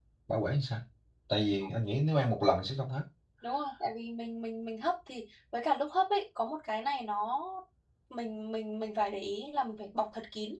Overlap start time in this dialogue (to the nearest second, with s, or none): none